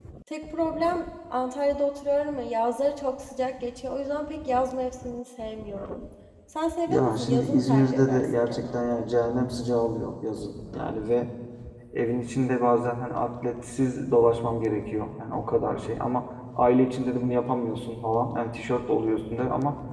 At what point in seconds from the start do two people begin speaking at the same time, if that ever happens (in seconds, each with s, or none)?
6.9 s